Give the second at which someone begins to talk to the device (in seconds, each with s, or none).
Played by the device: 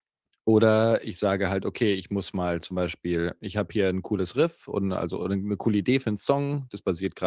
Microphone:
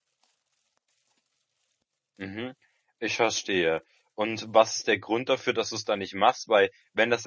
2.2 s